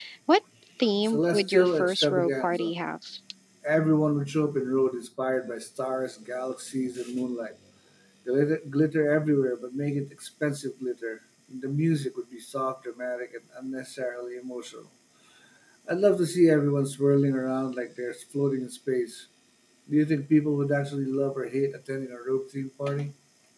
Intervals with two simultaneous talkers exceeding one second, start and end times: 1.0-2.7

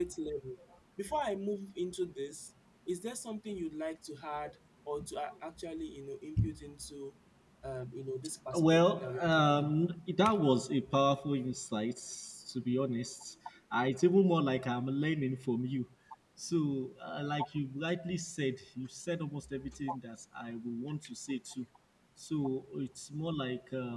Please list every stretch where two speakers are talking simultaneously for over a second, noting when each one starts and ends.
8.5-9.7

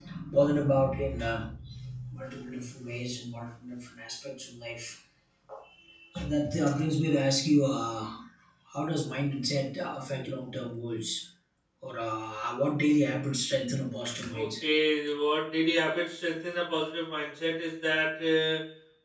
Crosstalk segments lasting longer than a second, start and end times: none

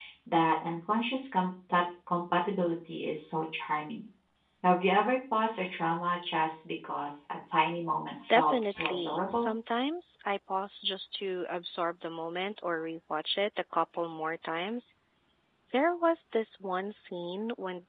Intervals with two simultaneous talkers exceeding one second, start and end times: 8.3-9.5

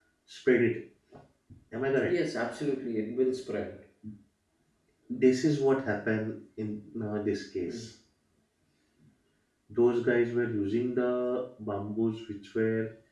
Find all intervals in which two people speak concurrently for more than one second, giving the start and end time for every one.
none

